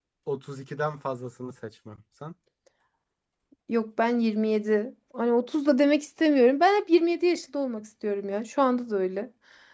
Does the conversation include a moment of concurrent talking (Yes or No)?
No